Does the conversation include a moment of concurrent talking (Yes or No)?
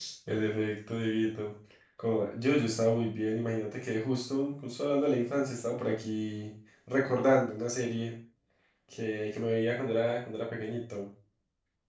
No